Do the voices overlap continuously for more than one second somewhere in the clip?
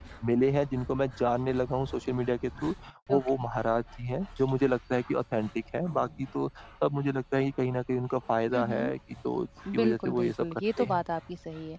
Yes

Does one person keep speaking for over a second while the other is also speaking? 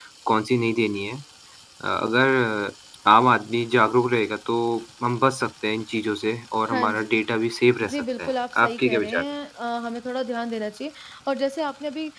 Yes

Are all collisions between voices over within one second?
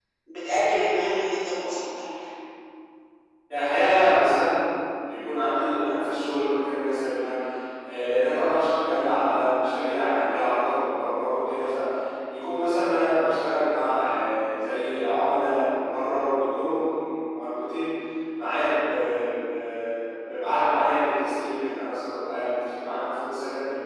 Yes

